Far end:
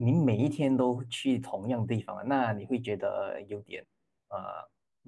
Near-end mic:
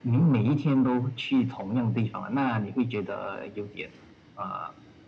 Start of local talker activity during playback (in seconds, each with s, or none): none